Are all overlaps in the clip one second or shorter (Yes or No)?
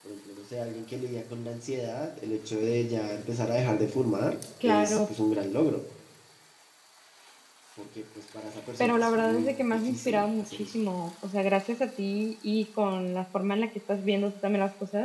No